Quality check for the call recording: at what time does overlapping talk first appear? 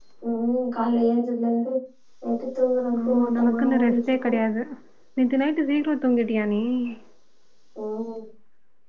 3.1 s

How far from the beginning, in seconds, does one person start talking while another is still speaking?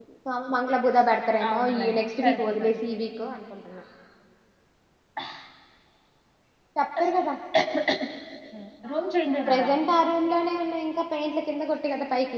1.5 s

